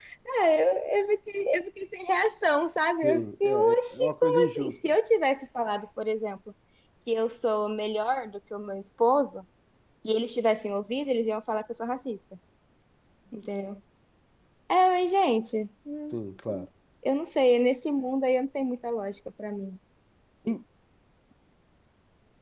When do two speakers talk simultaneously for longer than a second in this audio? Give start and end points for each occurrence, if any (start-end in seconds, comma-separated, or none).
3.0-5.0